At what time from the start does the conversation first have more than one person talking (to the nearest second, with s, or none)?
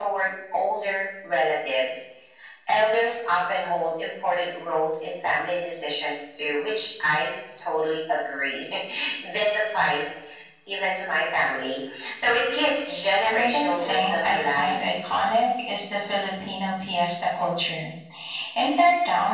13 s